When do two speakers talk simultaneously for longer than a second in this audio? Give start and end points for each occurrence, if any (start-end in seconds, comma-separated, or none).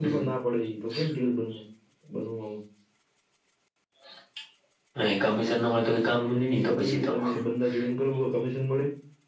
5.6-7.1